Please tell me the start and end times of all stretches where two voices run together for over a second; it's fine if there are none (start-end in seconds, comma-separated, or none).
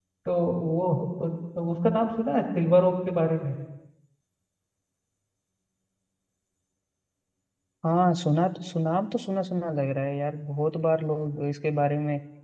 none